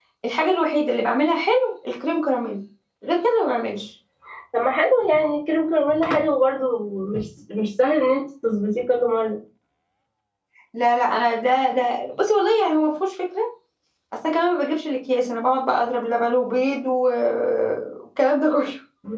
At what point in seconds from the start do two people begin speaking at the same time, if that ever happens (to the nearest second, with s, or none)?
none